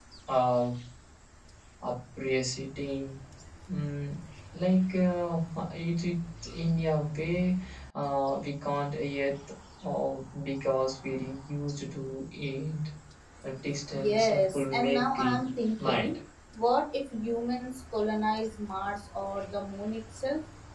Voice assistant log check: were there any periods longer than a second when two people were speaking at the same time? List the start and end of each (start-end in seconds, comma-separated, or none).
14.0-15.4